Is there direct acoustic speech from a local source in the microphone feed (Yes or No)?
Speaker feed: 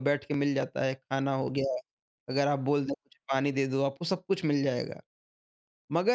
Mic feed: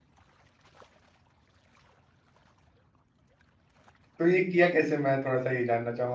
Yes